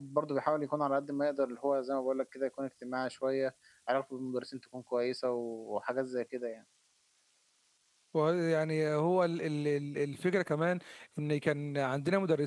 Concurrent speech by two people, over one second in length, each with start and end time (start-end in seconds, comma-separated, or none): none